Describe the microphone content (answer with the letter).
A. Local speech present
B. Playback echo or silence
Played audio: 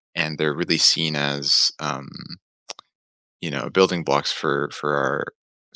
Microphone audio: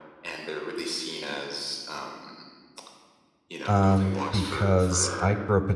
A